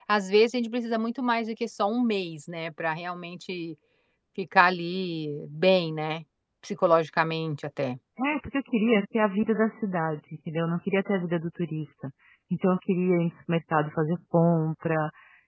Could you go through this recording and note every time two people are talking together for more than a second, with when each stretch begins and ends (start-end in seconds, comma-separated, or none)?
none